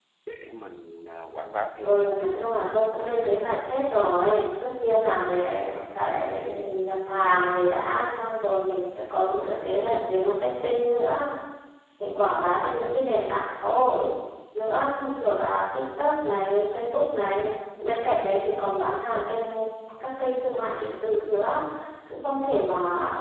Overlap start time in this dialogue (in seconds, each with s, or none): 1.8 s